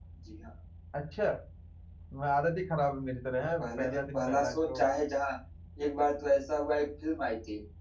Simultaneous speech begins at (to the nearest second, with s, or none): 4 s